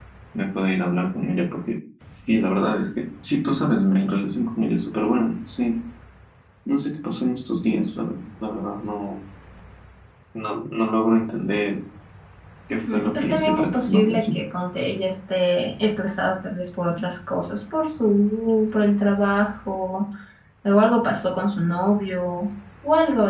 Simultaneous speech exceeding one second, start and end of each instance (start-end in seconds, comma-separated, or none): 12.9-14.4